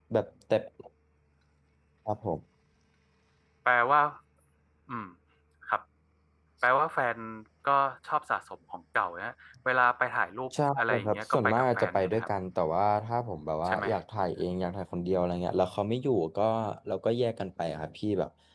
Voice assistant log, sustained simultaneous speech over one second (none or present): present